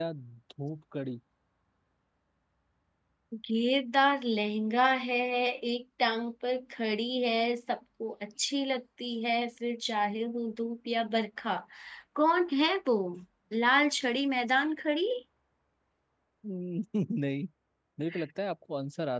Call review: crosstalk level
none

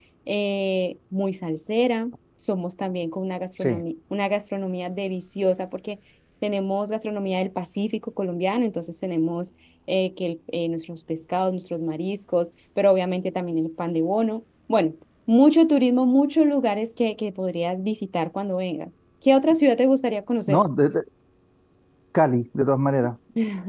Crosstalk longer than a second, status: none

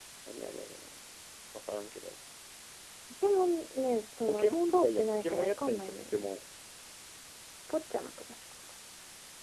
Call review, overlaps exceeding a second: present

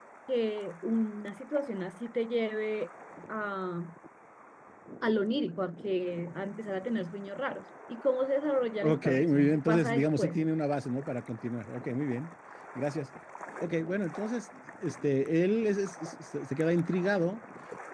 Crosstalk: present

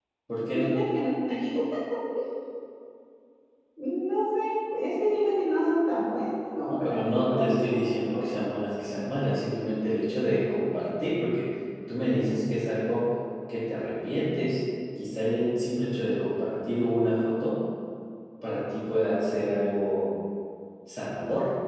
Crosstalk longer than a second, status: present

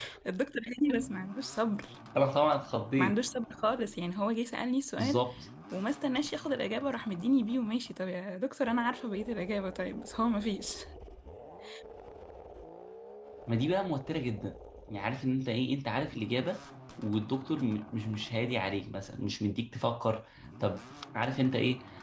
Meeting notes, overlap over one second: none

